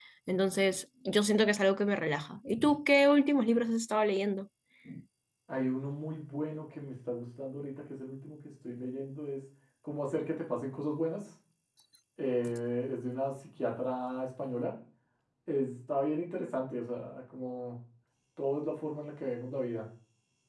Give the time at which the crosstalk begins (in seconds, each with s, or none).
none